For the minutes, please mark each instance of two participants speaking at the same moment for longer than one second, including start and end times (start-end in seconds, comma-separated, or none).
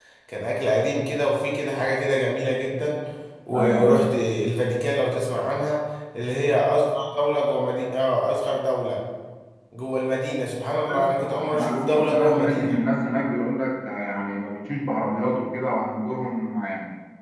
10.7-12.7